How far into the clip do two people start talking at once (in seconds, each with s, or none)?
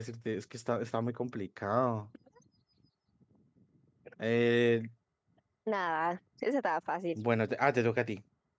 none